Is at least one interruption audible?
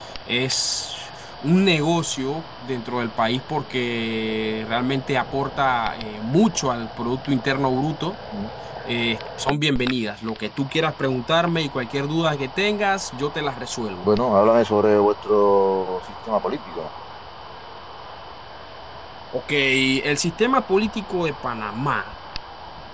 No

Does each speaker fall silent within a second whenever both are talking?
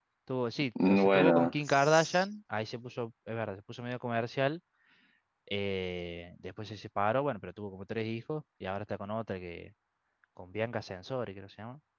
No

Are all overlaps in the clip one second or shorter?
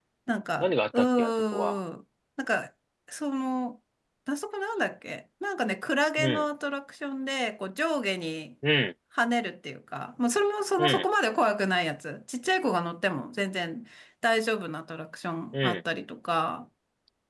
No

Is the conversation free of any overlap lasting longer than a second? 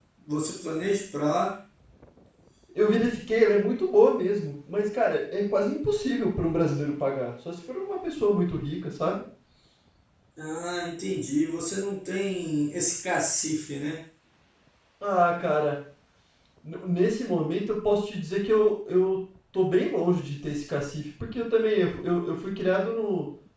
Yes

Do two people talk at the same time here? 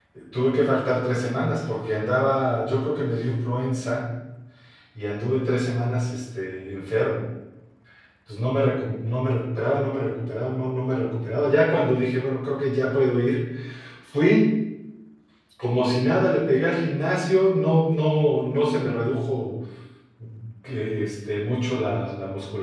No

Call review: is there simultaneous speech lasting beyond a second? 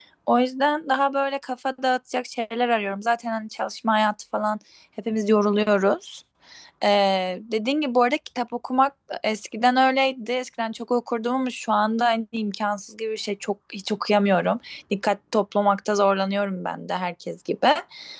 No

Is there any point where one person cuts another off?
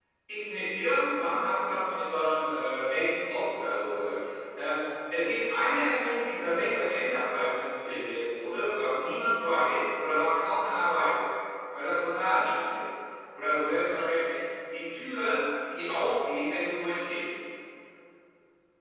No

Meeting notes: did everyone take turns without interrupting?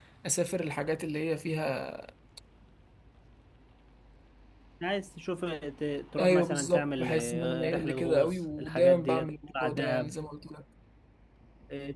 No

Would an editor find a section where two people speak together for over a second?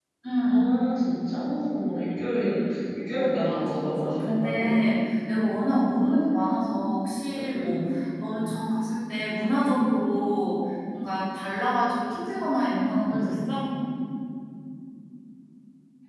Yes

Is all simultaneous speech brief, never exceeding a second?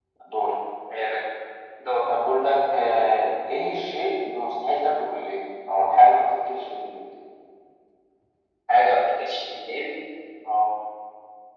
Yes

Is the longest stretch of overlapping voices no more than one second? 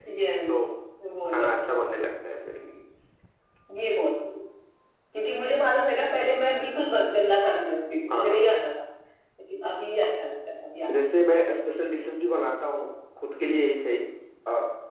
Yes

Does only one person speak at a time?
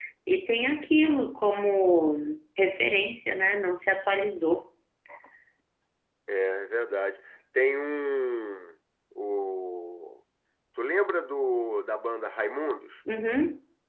Yes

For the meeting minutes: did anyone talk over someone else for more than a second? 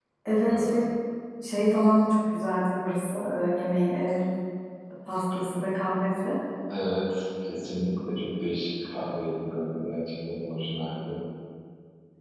No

